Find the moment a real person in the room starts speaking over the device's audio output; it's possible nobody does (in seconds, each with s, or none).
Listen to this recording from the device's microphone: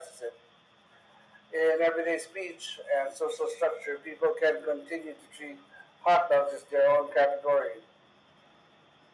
none